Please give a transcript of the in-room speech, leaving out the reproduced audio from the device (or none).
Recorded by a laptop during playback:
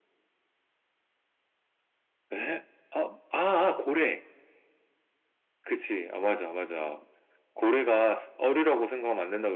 none